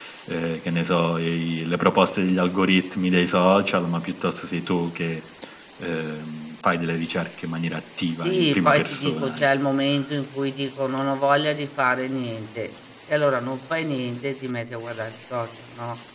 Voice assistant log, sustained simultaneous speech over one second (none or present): present